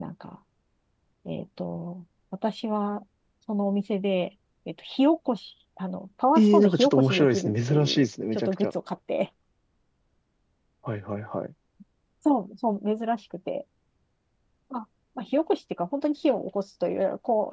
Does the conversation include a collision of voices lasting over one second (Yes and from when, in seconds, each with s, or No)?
Yes, from 6.4 s